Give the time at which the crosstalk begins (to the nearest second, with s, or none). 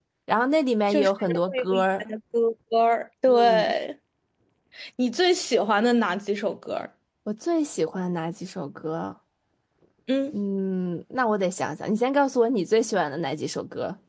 1 s